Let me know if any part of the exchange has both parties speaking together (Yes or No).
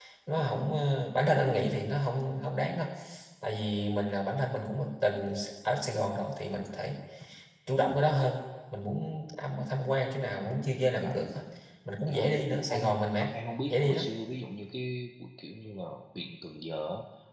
Yes